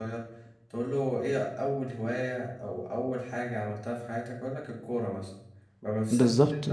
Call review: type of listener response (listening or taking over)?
listening